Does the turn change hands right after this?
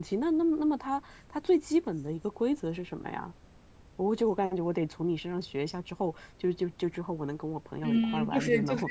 Yes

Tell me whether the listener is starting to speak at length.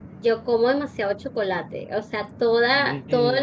No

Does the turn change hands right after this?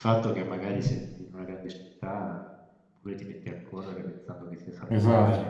Yes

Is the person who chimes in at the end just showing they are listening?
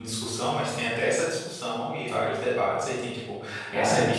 Yes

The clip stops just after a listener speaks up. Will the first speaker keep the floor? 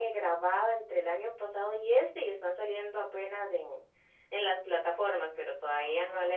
Yes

